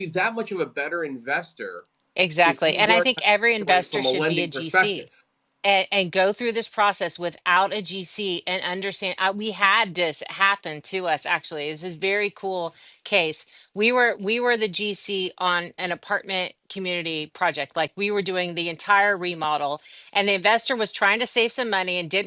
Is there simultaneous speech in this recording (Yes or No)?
Yes